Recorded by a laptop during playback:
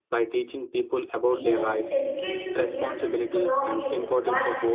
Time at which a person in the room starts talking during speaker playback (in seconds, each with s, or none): 1.3 s